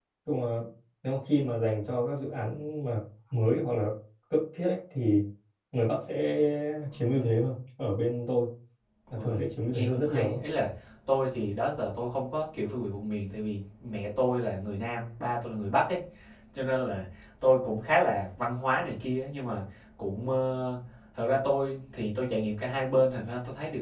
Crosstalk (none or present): present